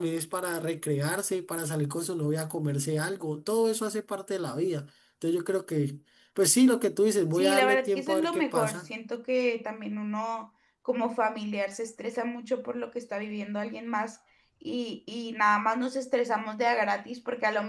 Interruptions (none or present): present